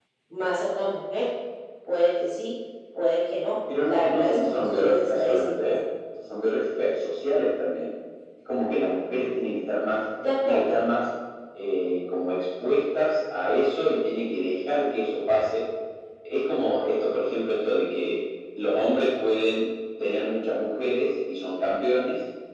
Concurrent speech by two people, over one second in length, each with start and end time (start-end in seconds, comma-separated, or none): 3.8-5.7